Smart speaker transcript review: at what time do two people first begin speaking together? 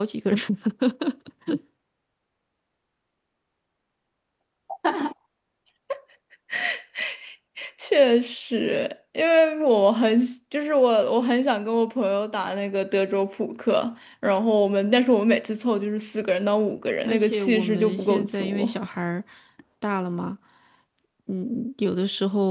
17 s

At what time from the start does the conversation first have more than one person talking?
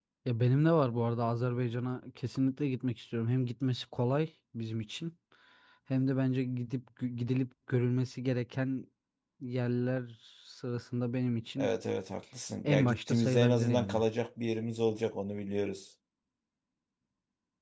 13 s

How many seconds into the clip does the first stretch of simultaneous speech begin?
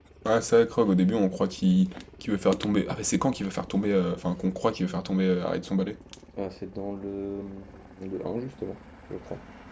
none

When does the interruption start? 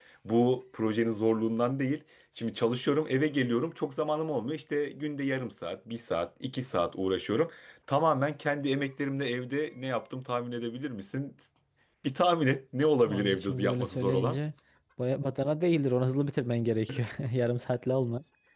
13 s

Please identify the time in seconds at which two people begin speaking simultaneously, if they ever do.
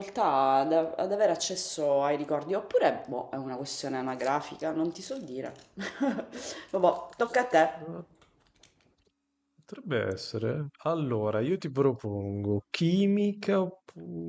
none

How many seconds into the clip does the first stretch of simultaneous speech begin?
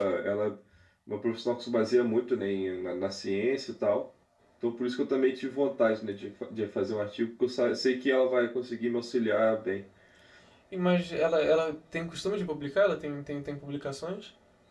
none

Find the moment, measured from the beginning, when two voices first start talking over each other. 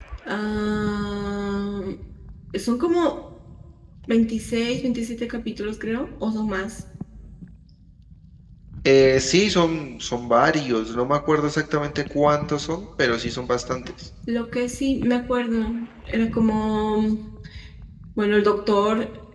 none

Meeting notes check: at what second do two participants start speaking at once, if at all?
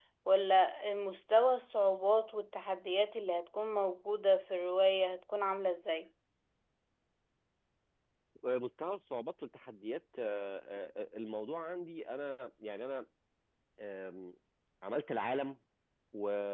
none

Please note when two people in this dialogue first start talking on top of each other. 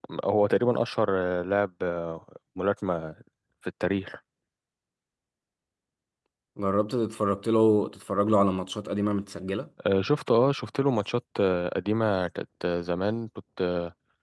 none

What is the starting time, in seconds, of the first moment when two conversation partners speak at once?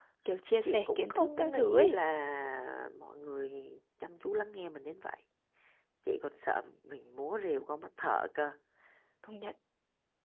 1 s

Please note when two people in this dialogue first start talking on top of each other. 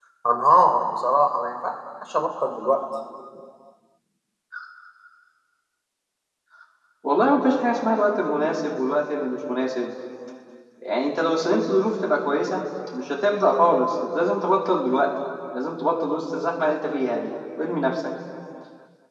none

